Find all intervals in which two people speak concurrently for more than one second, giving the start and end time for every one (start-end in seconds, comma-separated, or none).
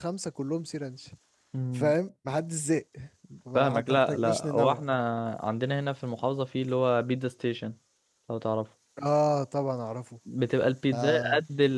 3.6-4.8